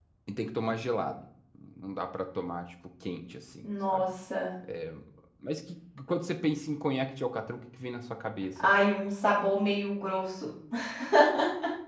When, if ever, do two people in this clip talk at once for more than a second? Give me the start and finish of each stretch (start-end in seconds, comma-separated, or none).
none